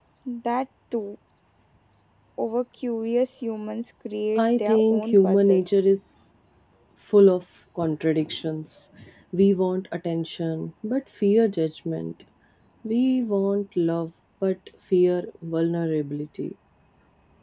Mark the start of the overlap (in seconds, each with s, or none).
4.4 s